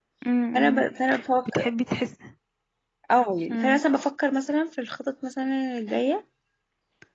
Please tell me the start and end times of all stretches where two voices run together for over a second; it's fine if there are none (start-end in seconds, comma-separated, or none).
none